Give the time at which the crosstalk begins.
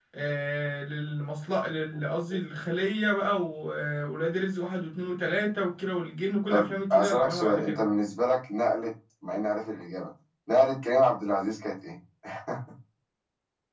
6.5 s

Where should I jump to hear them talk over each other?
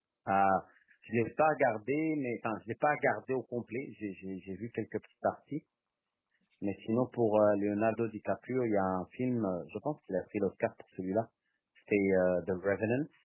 none

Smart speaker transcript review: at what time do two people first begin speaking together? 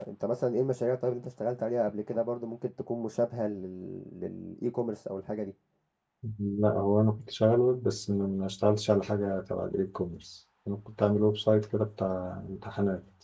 none

